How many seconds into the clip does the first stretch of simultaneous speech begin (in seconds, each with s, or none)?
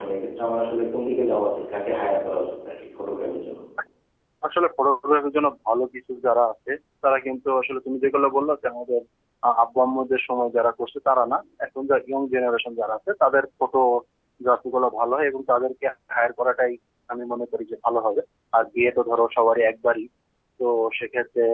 none